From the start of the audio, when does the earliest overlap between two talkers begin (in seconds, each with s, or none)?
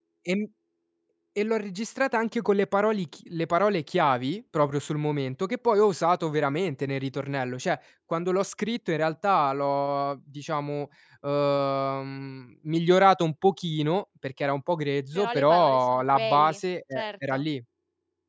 15.2 s